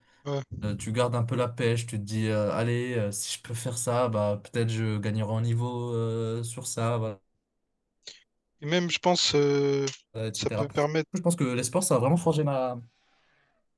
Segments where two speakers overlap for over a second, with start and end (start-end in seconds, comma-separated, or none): none